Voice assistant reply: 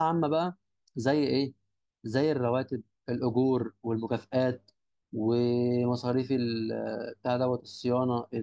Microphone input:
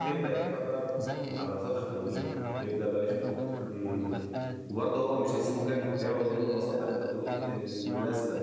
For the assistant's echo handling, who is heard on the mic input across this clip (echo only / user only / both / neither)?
both